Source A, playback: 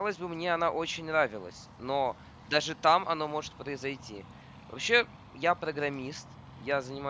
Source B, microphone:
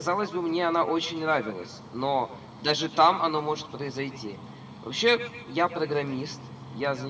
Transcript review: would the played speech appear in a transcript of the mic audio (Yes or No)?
Yes